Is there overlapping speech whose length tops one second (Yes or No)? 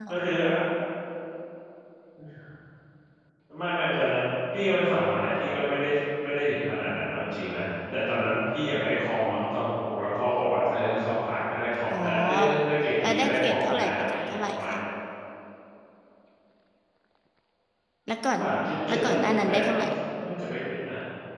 Yes